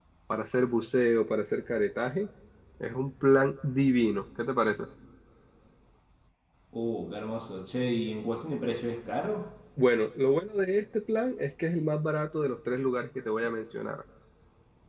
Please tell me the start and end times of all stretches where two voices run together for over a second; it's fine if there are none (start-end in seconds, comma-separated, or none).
none